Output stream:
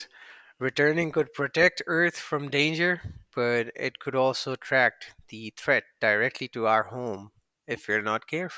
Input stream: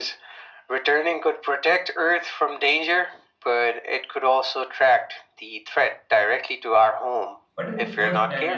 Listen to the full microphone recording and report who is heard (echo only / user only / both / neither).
both